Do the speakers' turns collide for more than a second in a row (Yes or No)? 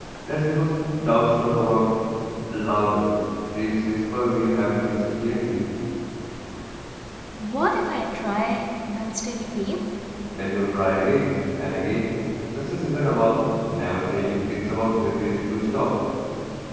No